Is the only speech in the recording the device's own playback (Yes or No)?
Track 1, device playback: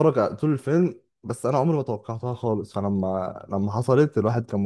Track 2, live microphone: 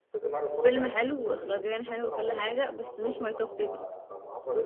No